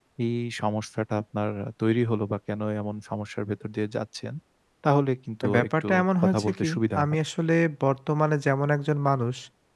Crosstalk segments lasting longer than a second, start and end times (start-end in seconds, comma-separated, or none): 5.5-7.2